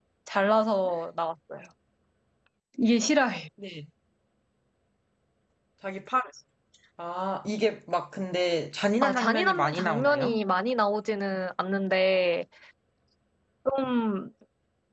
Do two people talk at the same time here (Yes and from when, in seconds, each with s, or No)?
Yes, from 9.0 s